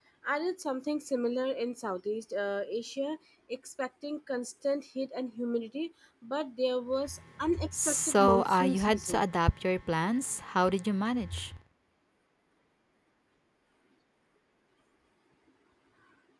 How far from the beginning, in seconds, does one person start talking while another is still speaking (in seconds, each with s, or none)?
7.7 s